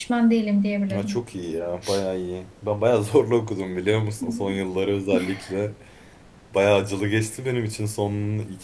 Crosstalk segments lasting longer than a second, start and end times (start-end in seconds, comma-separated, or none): none